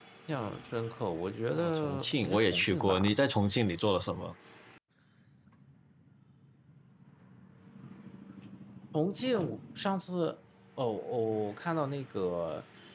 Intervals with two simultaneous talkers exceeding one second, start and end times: 1.5-3.1

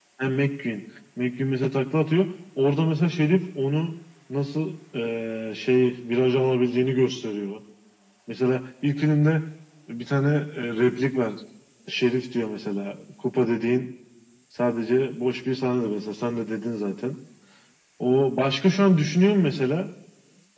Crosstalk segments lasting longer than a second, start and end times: none

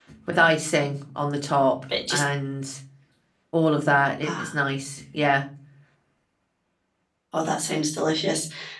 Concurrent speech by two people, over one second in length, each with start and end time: none

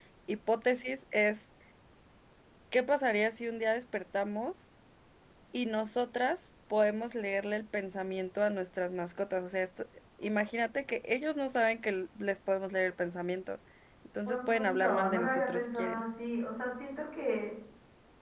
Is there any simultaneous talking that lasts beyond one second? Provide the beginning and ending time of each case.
14.2-16.0

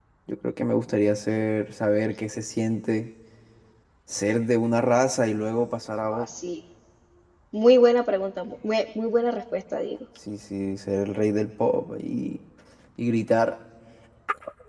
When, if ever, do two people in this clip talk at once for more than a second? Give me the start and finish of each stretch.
none

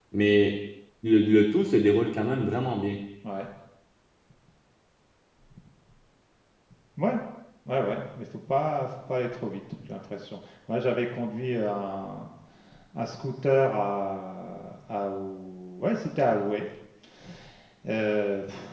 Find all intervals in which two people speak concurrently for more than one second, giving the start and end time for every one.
none

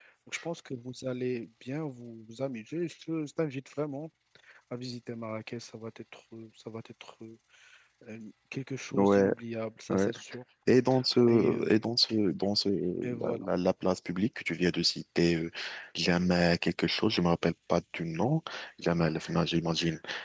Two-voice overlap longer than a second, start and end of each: none

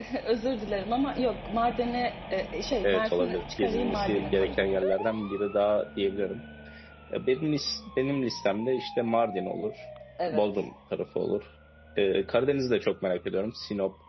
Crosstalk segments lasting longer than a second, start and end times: 2.8-4.6

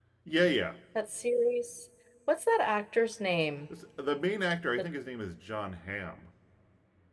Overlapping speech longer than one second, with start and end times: none

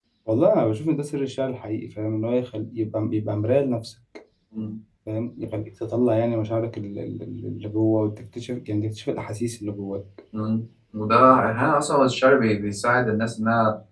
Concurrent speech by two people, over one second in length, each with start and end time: none

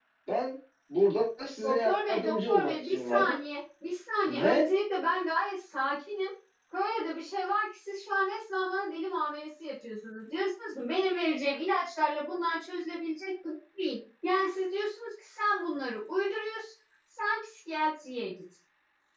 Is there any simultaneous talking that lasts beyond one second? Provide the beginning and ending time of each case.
1.6-3.3

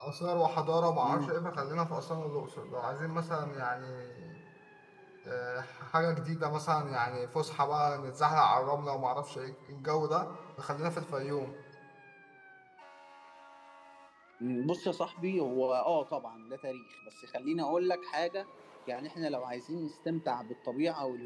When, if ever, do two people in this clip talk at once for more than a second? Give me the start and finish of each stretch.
none

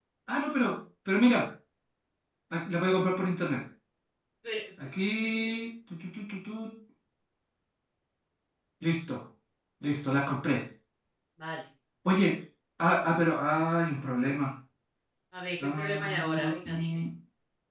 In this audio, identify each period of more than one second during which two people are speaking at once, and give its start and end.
15.6-16.9

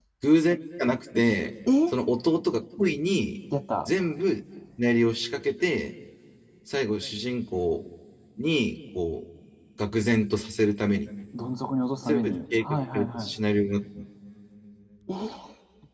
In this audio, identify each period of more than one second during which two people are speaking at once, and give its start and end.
12.1-13.3

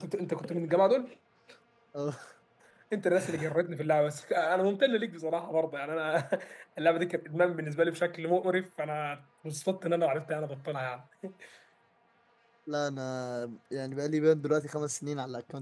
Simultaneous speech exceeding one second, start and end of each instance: none

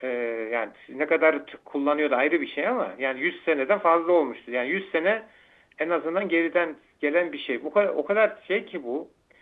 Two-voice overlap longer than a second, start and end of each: none

